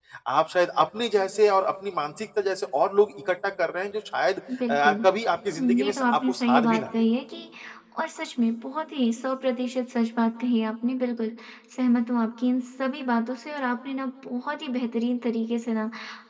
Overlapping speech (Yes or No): Yes